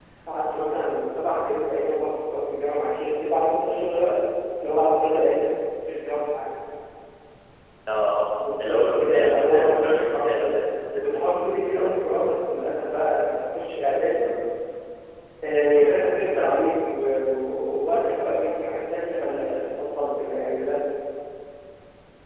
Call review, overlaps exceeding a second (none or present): present